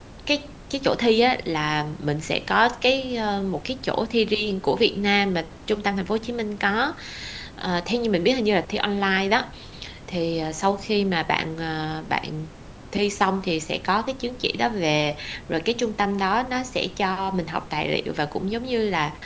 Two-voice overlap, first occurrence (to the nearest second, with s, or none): none